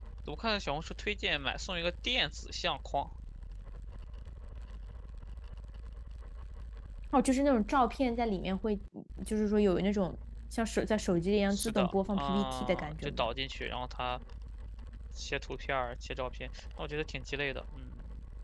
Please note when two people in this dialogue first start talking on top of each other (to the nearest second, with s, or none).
12 s